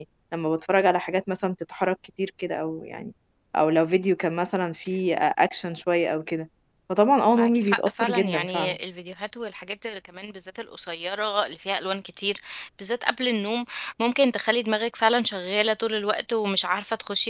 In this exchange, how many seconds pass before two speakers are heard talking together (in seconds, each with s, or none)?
7.3 s